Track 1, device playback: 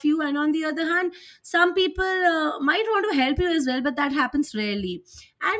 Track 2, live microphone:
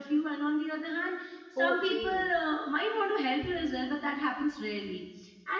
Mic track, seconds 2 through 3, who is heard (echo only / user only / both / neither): both